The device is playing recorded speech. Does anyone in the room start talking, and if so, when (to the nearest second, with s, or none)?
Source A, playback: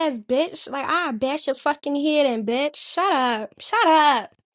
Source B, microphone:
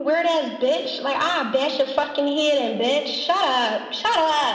none